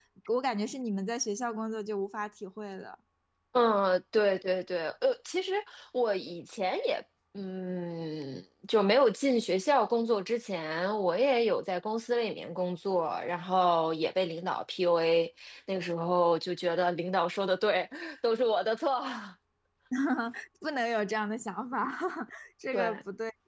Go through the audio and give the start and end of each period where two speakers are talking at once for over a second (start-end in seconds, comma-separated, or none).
none